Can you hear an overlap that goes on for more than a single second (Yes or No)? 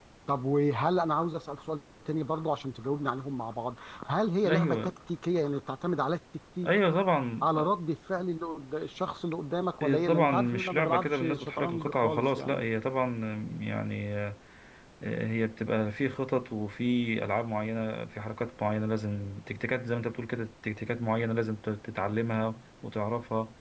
Yes